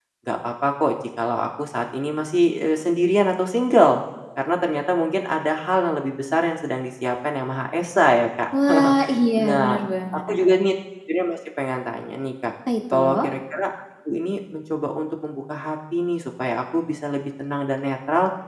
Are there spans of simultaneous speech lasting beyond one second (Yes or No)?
No